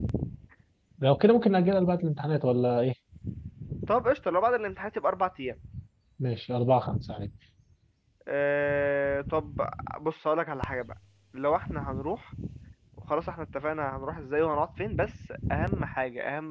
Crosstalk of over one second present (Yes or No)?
No